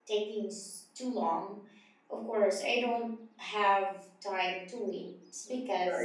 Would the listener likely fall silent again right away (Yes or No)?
No